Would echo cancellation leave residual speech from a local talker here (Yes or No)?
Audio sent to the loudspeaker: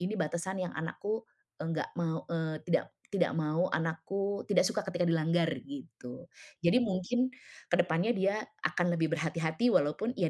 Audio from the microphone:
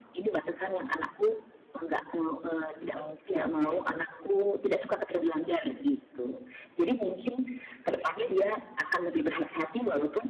Yes